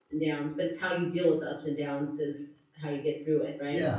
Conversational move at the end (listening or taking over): taking over